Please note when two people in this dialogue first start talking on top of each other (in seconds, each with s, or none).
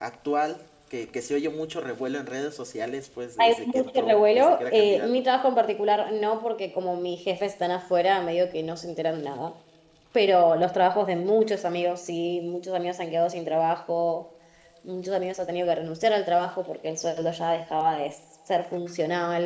3.4 s